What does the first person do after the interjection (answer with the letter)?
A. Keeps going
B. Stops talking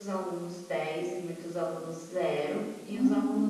A